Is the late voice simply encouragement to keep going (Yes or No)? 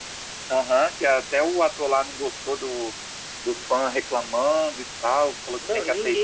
No